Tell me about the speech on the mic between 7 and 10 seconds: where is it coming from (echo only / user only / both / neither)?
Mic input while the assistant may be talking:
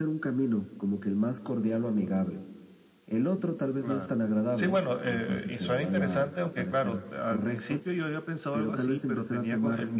echo only